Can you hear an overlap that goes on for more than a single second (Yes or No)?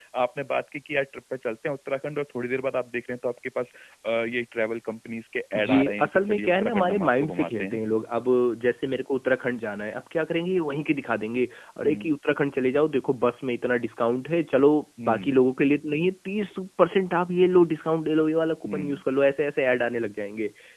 Yes